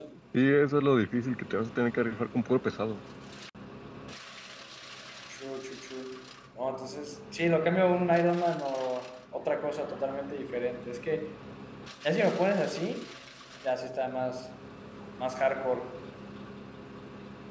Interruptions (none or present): none